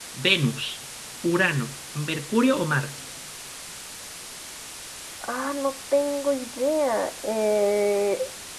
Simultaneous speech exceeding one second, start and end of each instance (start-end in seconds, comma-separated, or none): none